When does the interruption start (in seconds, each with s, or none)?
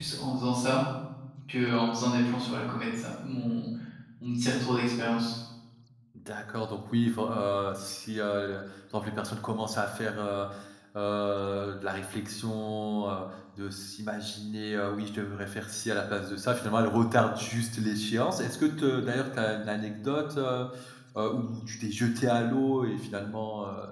none